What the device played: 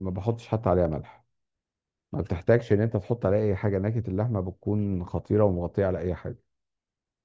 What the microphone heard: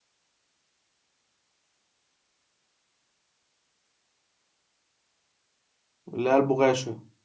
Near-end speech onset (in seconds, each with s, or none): 6.1 s